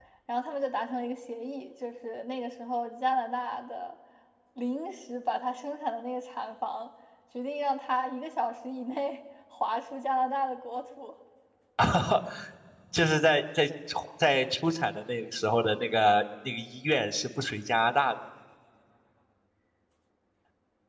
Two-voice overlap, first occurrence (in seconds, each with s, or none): none